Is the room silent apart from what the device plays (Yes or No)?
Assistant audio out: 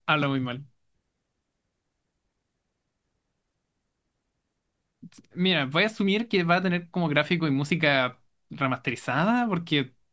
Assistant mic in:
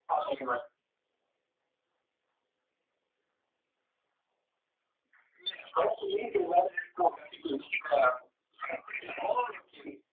Yes